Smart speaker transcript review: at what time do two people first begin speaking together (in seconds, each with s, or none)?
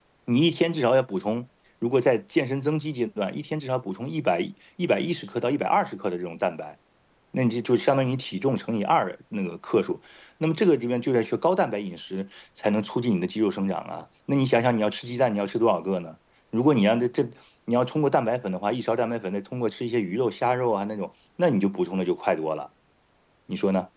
none